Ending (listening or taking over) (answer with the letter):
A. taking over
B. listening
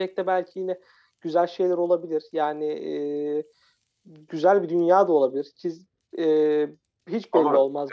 A